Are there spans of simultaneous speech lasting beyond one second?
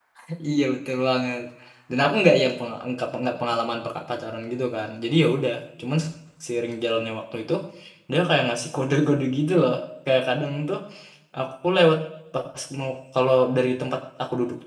No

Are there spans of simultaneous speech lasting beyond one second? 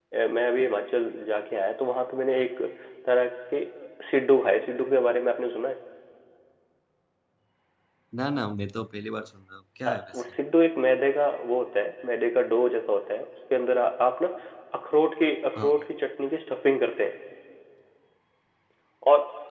No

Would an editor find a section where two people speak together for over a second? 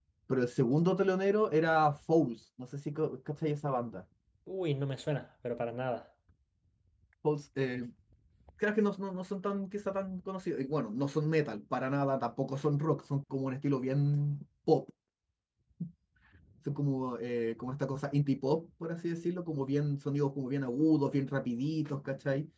No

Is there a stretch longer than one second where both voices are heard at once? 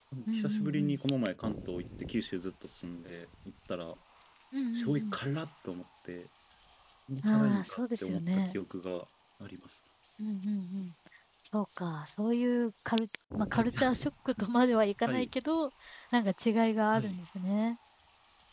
Yes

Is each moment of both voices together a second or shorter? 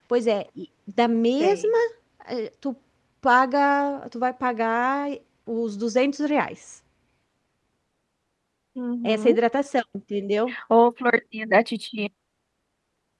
Yes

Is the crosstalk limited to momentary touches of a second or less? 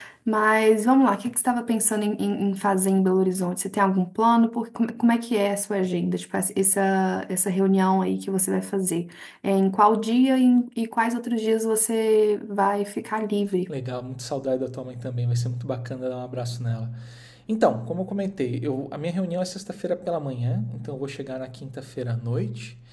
Yes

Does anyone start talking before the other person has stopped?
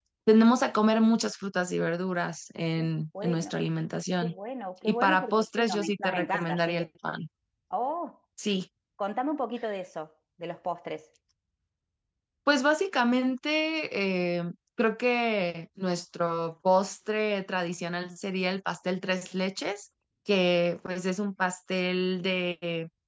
Yes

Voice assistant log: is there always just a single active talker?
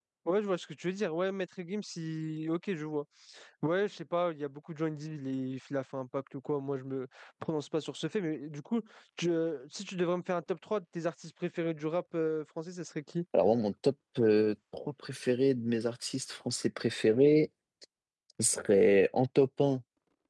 Yes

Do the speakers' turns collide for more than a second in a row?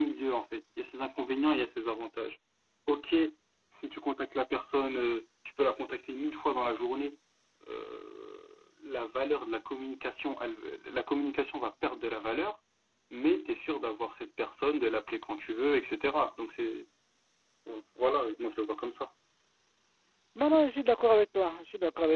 No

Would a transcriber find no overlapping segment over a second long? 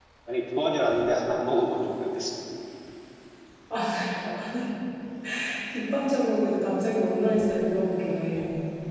Yes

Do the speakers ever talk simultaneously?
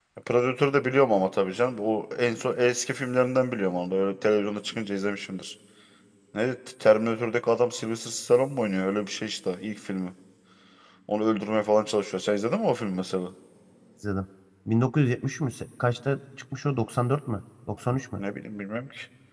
No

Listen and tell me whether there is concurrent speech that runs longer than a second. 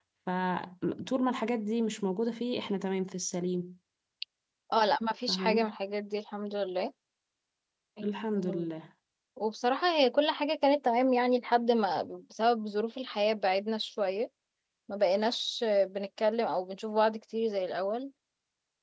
No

